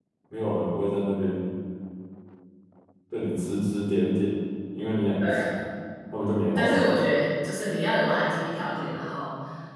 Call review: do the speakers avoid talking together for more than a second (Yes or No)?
Yes